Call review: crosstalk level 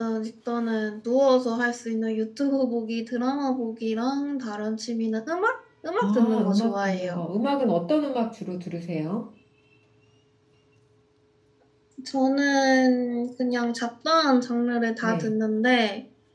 present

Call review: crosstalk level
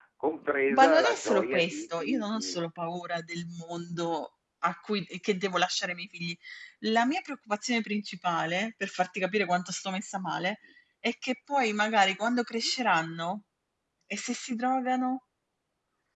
present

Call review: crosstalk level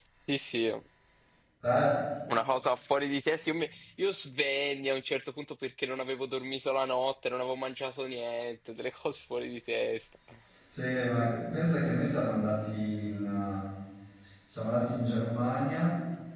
none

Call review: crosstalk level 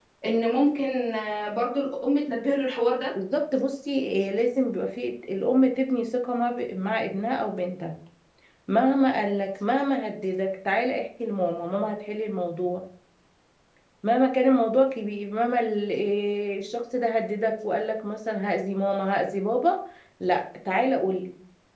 none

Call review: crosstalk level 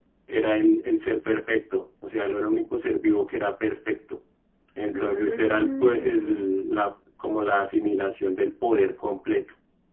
present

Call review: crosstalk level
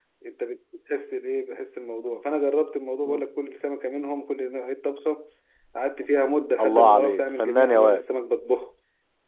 present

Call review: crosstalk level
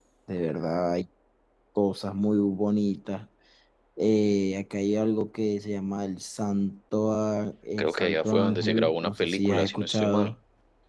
present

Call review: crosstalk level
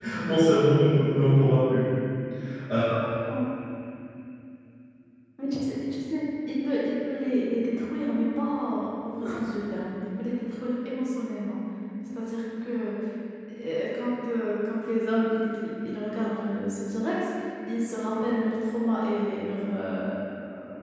none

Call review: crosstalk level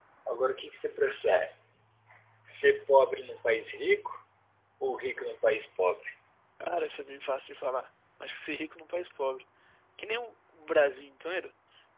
none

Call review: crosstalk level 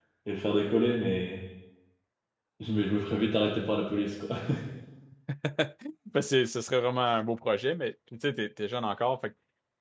none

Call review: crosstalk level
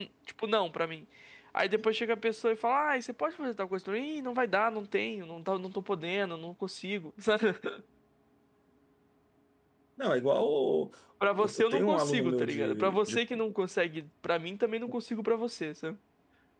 present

